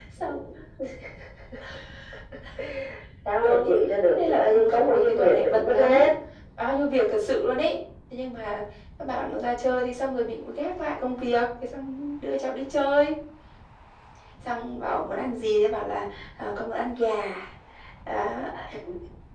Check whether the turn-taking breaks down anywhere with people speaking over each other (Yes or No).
Yes